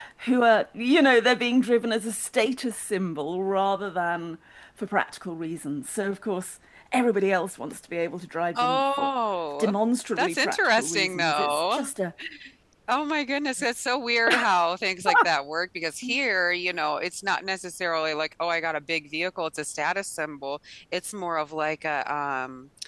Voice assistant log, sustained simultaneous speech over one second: present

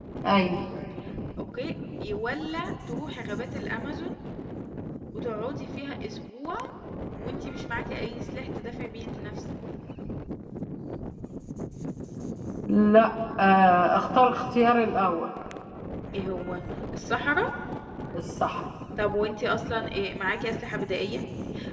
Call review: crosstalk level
none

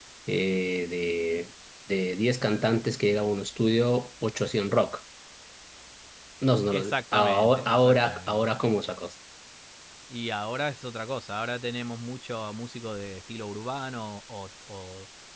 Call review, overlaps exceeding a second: present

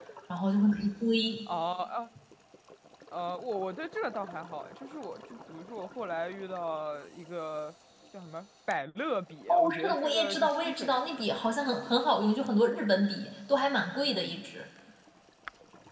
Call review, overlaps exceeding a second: present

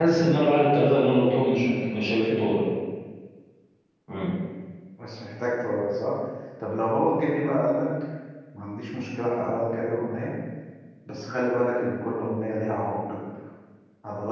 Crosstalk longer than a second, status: none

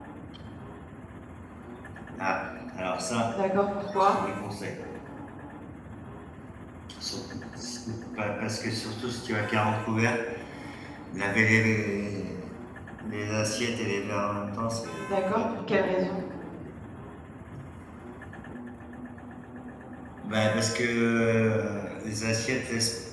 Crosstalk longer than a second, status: present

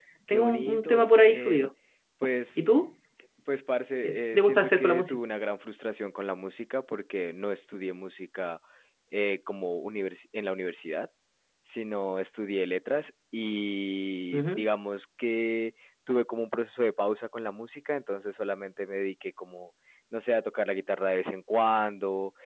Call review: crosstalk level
present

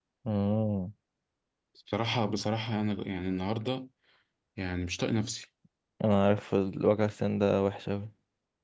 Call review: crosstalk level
none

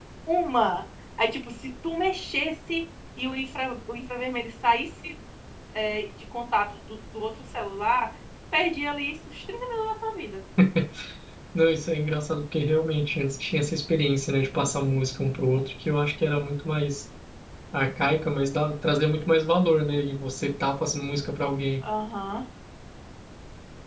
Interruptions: none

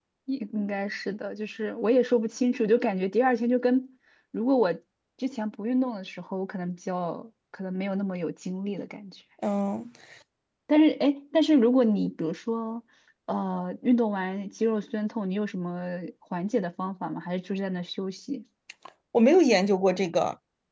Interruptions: none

